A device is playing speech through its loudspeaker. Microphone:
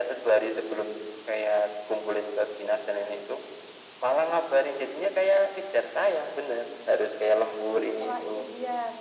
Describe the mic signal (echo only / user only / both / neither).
both